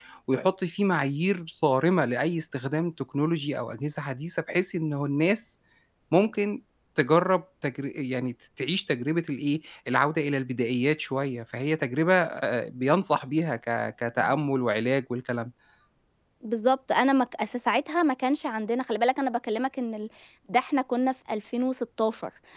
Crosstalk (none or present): none